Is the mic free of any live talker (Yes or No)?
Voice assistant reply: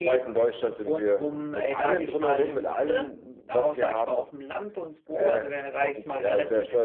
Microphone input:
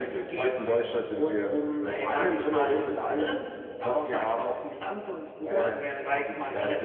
Yes